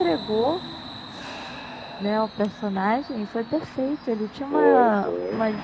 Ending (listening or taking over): listening